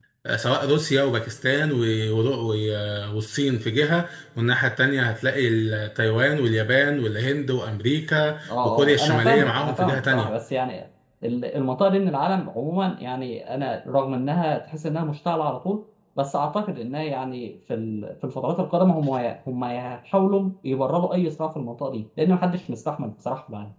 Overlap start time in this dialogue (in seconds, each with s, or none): 8.4 s